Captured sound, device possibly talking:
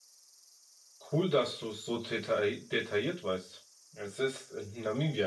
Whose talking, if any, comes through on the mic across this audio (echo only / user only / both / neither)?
user only